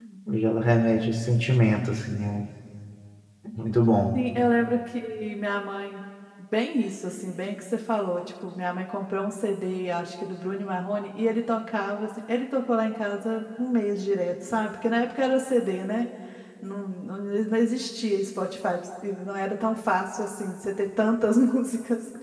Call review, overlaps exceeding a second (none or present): none